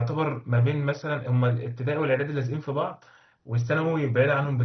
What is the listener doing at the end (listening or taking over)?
listening